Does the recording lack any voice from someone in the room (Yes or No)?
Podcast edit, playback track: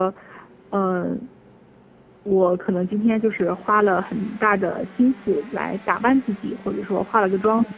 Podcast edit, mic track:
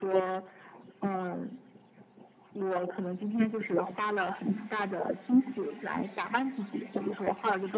Yes